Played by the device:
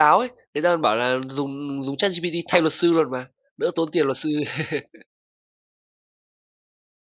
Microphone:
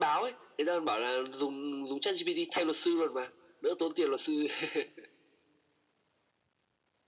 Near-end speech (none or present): none